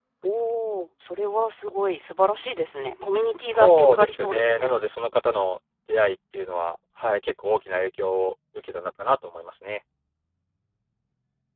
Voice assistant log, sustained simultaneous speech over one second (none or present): present